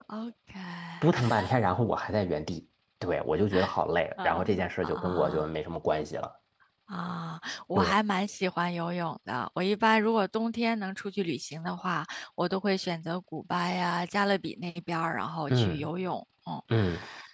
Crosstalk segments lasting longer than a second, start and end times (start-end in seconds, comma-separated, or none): 4.2-5.5